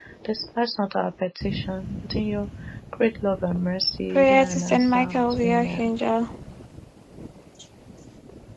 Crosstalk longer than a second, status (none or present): present